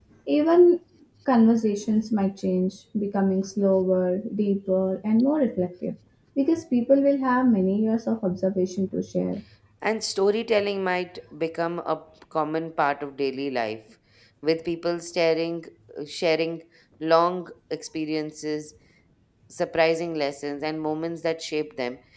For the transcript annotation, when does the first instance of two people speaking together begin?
none

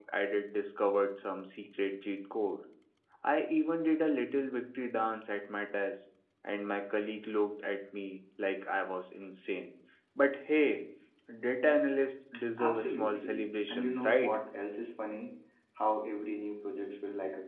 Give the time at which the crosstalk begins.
12.6 s

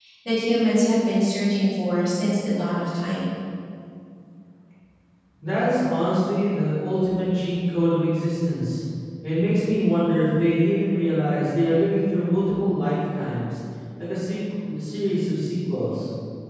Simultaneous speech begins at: none

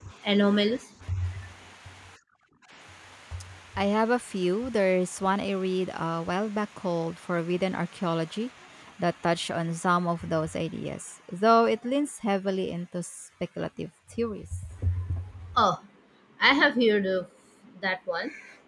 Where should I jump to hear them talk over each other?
none

